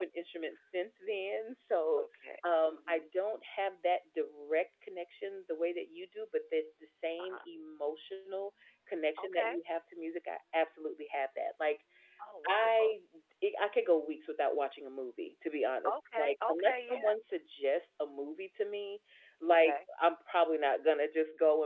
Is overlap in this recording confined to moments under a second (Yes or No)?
No